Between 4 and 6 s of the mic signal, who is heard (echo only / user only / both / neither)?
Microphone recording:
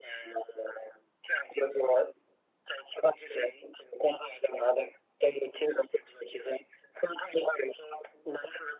echo only